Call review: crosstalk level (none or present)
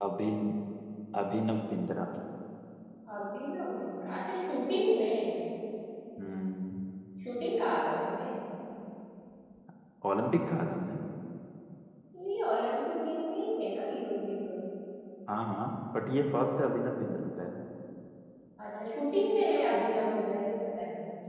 none